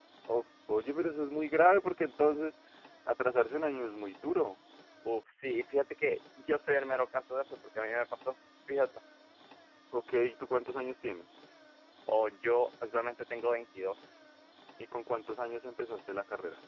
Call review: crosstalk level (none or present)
none